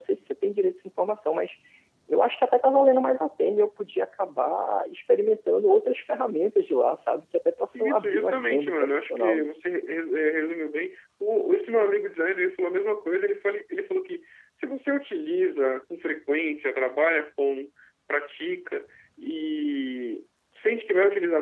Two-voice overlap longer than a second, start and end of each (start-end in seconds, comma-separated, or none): 7.7-9.4